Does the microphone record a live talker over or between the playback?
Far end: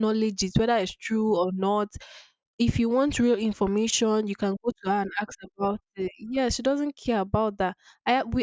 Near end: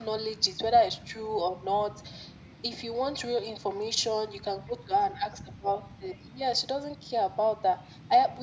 No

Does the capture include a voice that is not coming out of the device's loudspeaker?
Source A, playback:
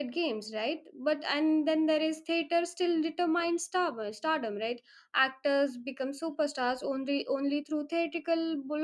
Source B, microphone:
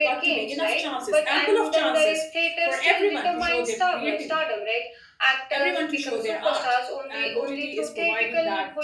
Yes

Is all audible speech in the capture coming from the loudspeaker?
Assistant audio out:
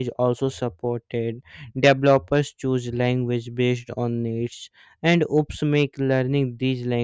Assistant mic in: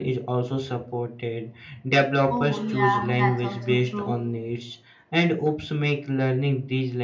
No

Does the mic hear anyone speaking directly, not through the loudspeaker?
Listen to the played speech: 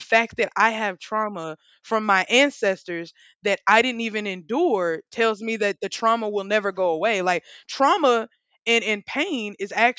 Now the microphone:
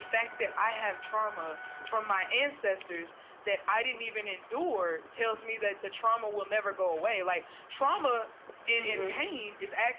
Yes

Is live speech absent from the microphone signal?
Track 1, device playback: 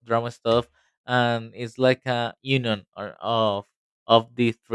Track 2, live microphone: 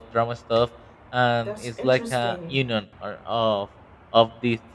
No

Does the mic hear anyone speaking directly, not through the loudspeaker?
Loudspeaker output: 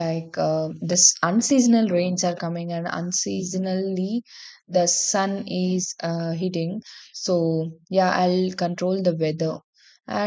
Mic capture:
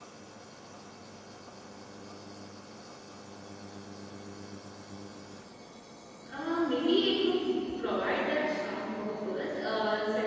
Yes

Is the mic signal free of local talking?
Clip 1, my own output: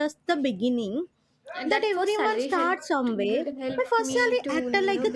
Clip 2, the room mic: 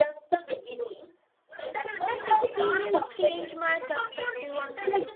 No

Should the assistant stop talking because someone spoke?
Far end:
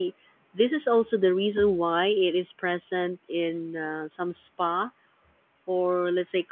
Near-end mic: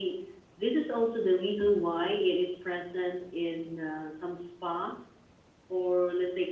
No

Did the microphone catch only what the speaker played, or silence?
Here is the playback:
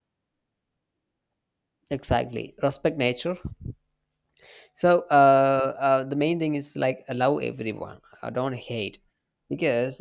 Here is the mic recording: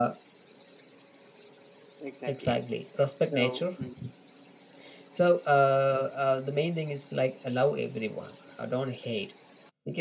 No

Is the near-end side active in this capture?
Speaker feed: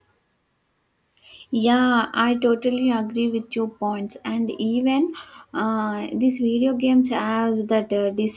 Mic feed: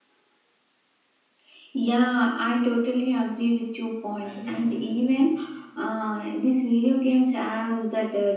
Yes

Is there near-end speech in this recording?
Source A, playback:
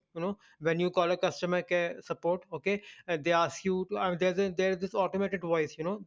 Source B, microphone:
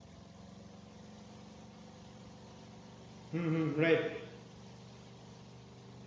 Yes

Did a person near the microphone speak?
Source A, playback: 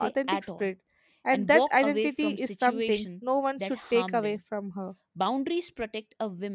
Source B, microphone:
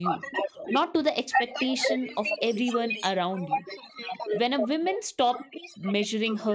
Yes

